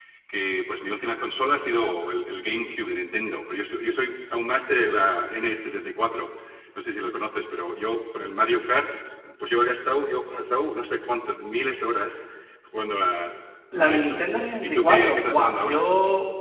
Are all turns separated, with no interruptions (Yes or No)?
No